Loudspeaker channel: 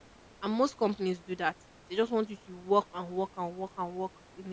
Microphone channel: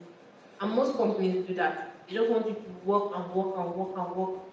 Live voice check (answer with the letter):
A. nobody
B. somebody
A